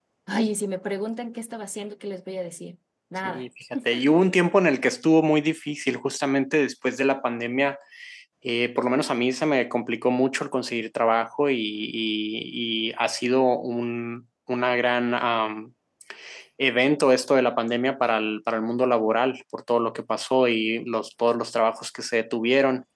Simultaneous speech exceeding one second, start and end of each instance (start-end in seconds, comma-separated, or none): none